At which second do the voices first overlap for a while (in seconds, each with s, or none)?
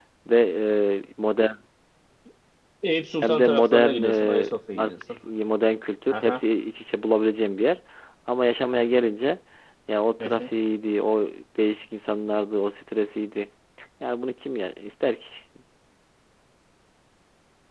3.2 s